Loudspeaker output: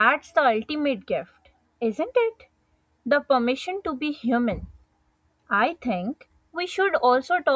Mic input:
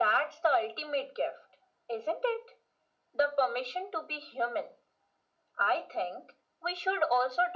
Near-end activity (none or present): none